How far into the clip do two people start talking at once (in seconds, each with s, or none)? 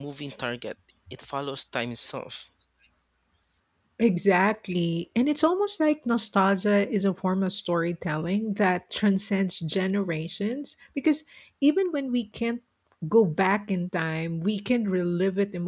none